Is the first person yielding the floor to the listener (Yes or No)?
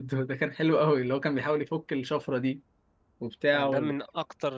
Yes